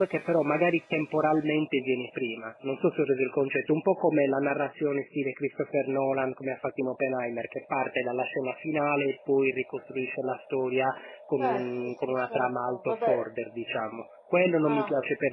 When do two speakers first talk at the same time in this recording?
11.3 s

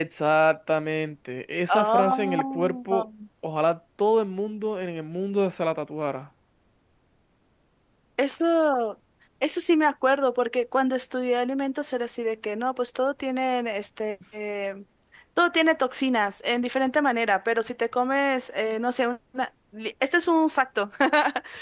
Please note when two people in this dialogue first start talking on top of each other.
1.7 s

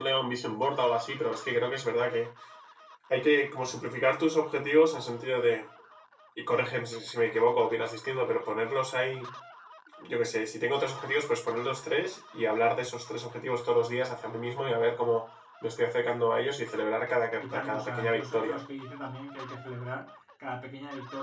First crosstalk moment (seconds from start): 17.4 s

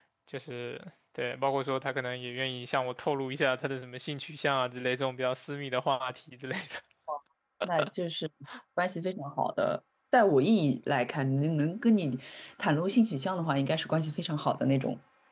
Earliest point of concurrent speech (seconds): none

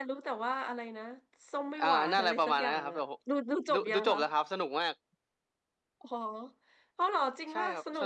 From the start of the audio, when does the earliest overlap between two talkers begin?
1.8 s

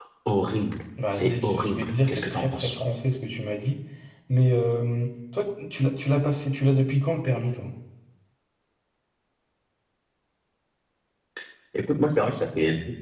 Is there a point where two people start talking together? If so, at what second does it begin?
1.1 s

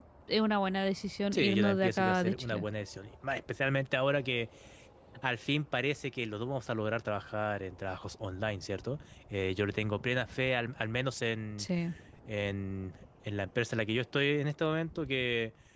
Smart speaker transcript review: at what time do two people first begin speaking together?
1.3 s

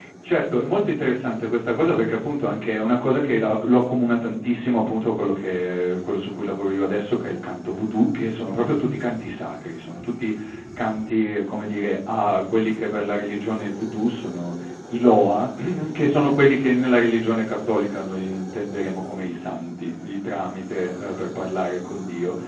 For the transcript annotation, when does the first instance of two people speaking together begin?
none

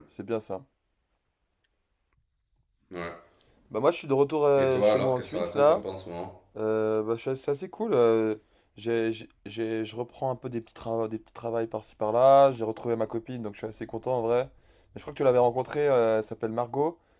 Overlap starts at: 4.6 s

